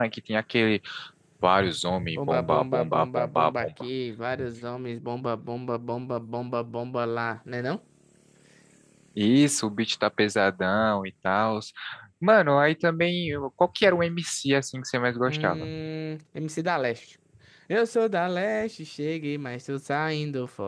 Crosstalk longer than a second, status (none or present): present